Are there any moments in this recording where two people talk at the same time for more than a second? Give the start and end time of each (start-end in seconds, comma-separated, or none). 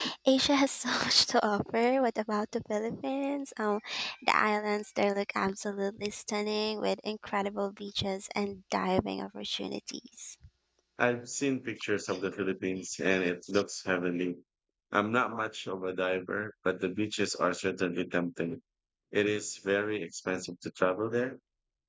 none